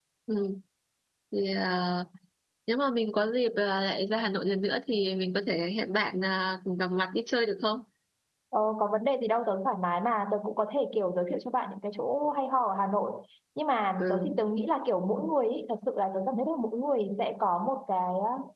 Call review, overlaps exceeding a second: none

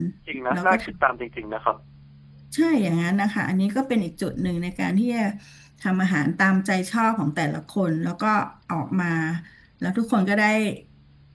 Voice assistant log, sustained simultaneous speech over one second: none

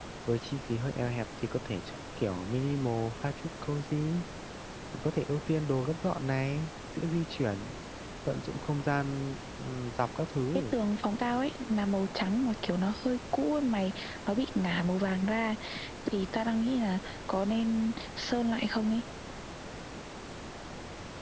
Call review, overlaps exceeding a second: none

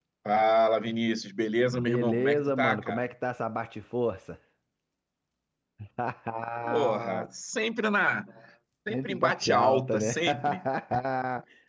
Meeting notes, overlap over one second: present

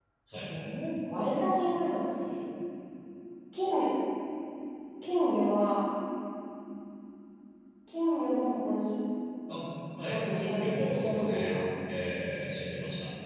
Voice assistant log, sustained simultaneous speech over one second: present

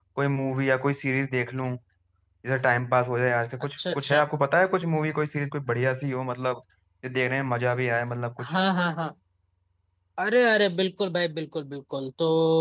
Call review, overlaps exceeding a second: none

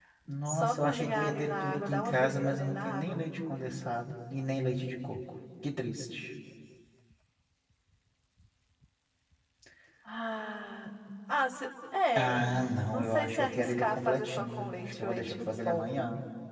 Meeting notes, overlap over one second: present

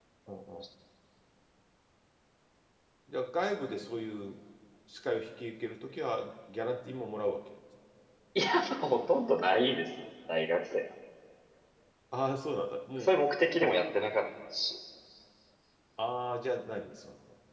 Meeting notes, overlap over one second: none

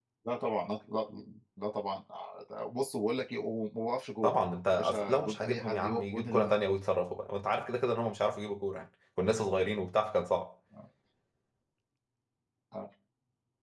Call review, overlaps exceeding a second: present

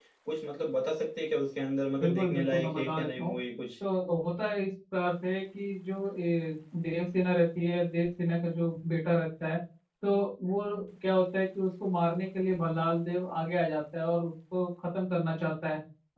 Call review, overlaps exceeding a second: present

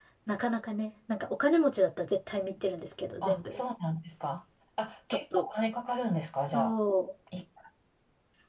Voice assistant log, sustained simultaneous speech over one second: none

